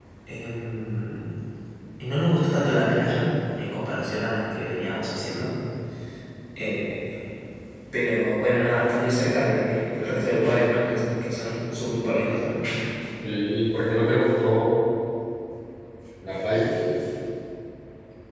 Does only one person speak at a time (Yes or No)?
Yes